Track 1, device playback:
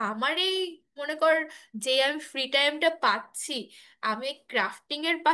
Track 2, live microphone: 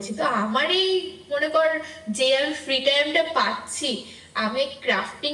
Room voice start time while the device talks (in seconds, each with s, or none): none